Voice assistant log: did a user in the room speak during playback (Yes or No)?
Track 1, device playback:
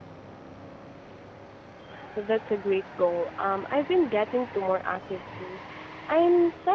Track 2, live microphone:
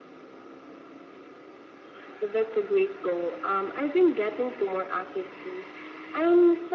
No